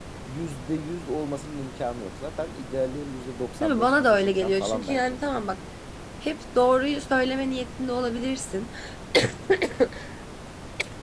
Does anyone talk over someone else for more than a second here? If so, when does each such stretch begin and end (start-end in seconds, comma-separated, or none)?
3.6-5.2